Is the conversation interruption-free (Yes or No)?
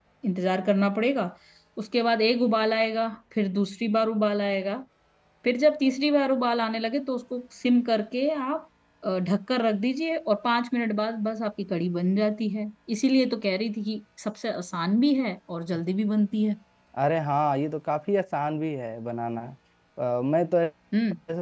Yes